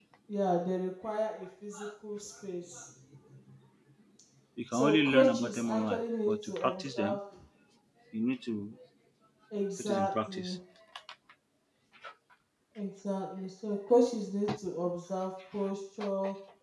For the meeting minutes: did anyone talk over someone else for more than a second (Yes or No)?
Yes